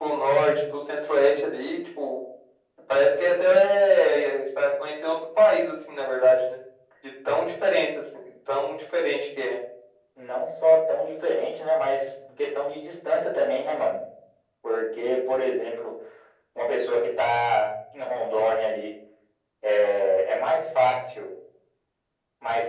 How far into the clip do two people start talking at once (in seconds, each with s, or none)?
none